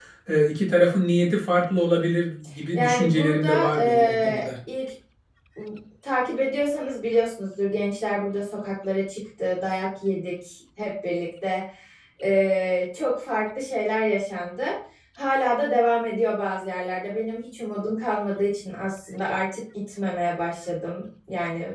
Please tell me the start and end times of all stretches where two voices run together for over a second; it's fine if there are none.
2.7-4.5

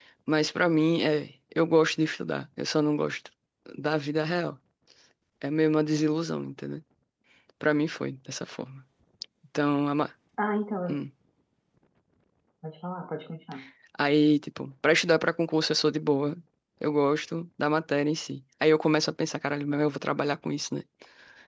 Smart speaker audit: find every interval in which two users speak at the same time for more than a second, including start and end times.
none

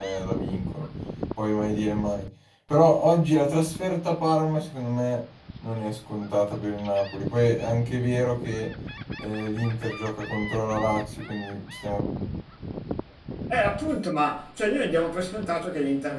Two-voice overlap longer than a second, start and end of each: none

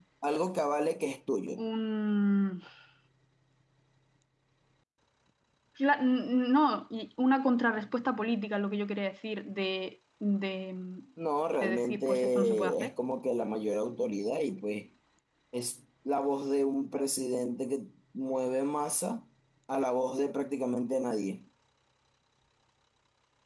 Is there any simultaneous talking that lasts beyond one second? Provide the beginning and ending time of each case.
11.6-12.9

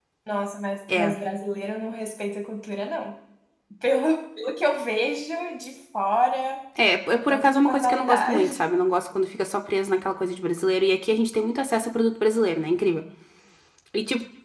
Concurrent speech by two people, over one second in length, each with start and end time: 7.1-8.6

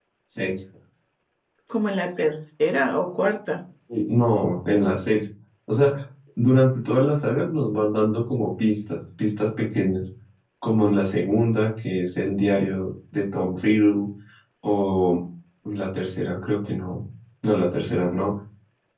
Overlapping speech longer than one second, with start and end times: none

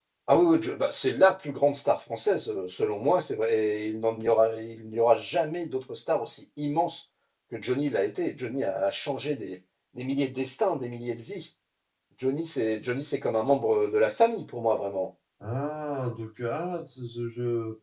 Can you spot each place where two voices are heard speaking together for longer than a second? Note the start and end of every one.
none

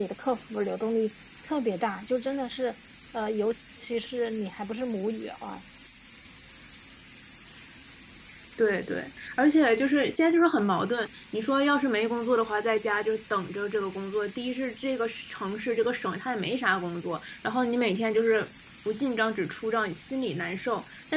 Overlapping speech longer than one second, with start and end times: none

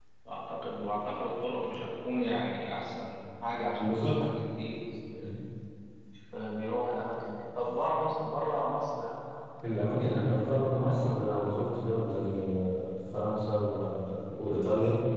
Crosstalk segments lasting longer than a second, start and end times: 10.0-11.8

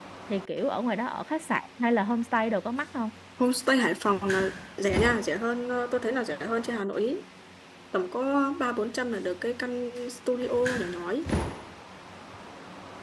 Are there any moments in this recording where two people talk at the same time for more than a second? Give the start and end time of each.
none

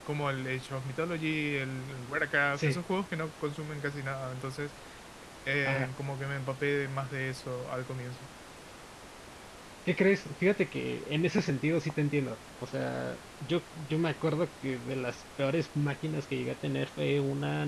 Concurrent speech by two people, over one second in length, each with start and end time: none

